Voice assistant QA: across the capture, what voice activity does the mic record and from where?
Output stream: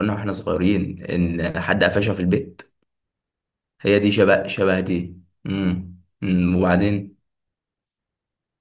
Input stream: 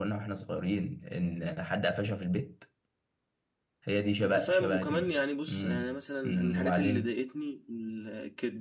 both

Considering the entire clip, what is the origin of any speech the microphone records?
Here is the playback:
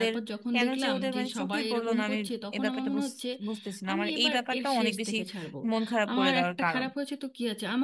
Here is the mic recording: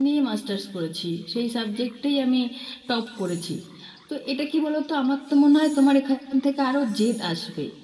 user only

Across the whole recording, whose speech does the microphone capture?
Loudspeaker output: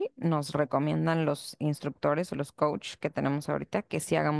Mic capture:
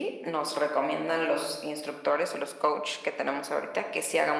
echo only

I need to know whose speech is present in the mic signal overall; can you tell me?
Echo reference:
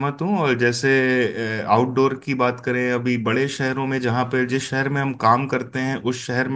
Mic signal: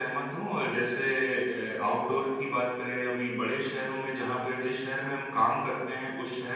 echo only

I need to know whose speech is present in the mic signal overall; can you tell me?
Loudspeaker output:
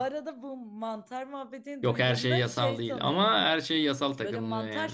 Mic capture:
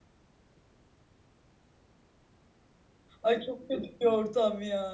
user only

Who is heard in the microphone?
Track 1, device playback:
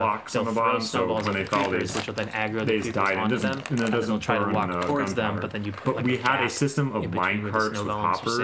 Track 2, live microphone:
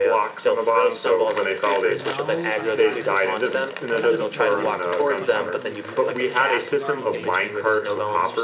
both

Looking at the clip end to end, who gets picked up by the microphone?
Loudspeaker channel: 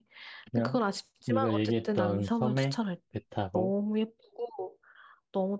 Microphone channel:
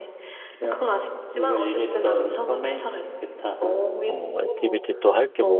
both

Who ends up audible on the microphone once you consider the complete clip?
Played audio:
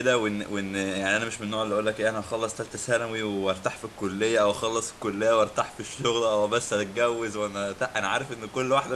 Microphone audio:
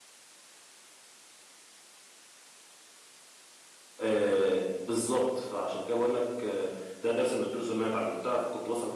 user only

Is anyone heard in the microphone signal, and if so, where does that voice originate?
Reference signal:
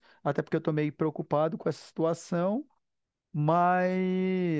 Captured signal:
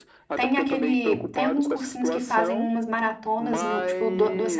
both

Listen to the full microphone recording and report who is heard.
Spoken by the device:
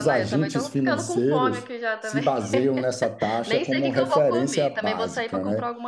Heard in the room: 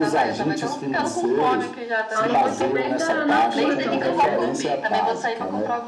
both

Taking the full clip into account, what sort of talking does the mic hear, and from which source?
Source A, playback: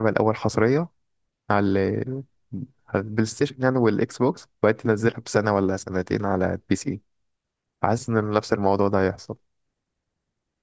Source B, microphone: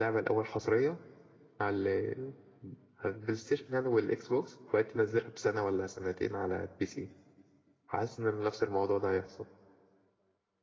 echo only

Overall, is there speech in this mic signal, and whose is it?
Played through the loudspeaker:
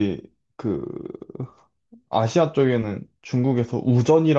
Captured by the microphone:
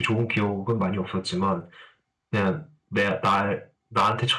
user only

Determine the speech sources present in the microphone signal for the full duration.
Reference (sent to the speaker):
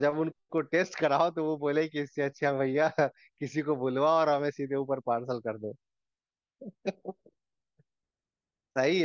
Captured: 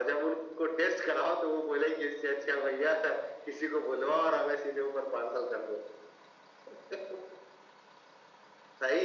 echo only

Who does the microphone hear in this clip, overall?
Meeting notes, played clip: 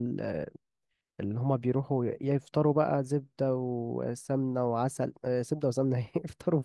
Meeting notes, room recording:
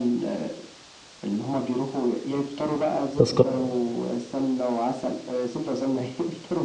both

